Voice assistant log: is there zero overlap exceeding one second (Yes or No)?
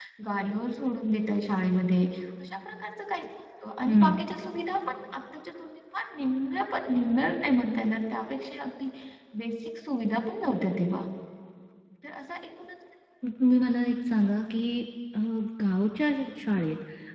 Yes